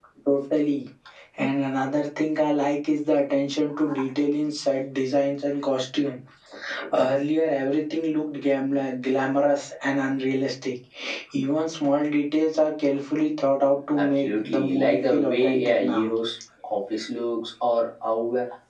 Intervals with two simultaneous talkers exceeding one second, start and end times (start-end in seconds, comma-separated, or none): 14.0-16.1